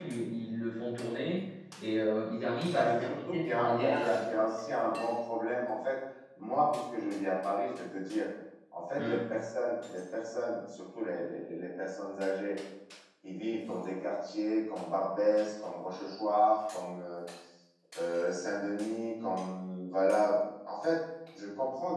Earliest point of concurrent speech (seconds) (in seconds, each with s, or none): 2.7 s